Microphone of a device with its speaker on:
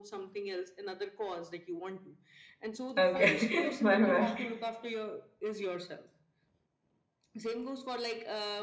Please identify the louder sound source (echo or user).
user